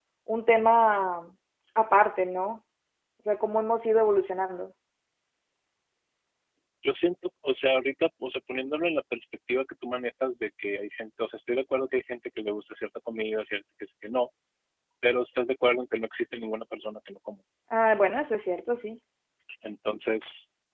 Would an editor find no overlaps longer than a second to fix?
Yes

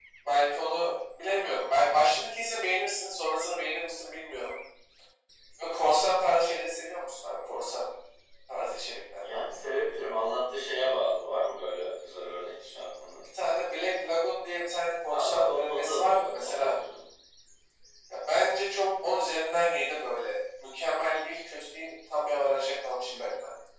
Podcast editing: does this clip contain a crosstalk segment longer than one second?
Yes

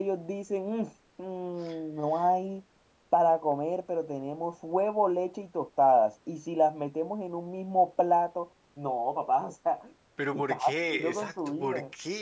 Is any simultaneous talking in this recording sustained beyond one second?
Yes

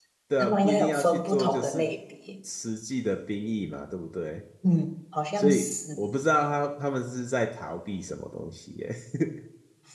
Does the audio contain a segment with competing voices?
Yes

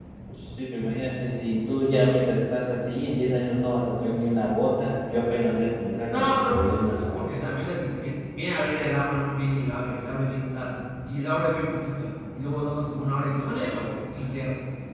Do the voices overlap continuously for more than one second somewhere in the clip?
Yes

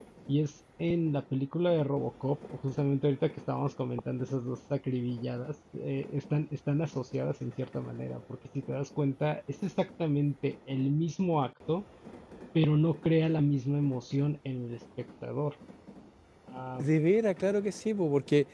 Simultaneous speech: No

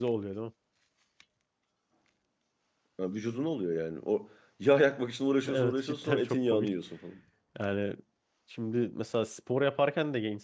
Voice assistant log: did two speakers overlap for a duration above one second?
Yes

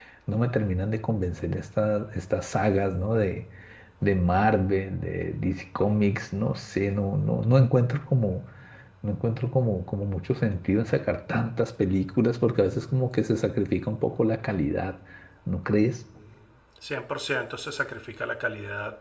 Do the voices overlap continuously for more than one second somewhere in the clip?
No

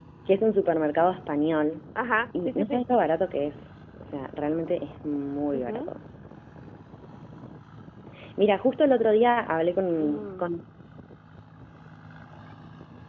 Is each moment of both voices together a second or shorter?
Yes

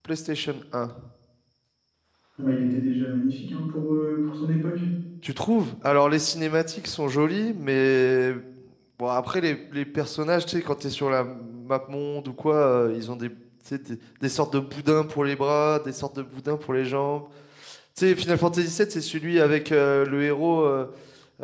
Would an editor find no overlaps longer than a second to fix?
Yes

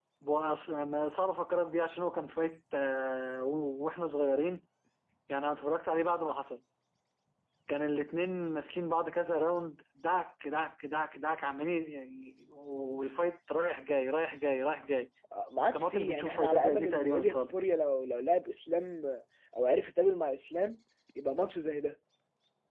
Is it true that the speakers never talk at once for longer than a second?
No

